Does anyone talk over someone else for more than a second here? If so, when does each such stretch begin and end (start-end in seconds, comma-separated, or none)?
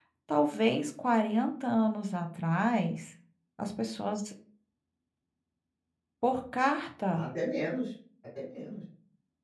none